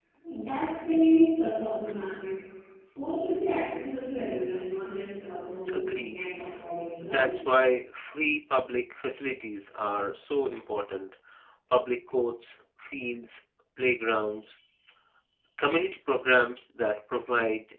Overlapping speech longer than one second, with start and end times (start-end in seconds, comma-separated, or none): none